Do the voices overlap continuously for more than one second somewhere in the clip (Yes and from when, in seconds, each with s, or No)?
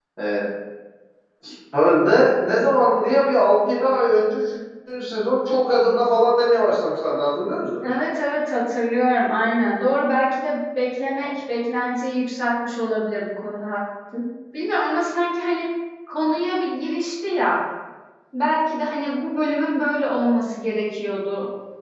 No